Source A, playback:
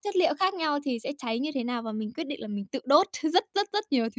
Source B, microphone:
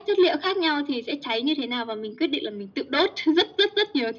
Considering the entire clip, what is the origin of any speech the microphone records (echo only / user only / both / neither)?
echo only